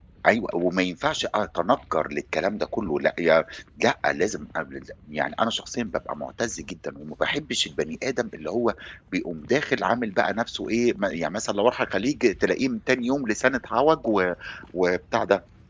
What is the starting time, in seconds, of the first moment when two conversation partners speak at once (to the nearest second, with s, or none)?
none